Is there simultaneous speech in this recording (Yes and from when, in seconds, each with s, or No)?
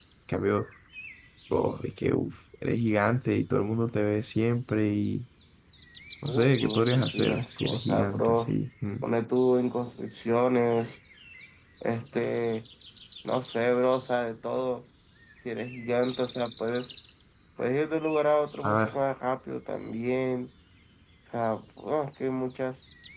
Yes, from 6.3 s